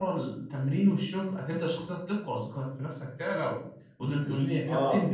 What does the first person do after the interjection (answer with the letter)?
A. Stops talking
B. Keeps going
B